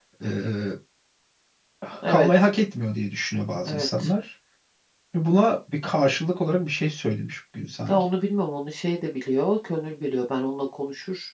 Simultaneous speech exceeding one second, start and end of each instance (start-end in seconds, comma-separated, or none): none